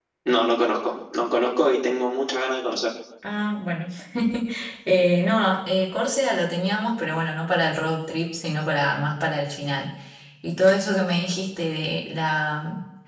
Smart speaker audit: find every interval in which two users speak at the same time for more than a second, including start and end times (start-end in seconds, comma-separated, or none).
none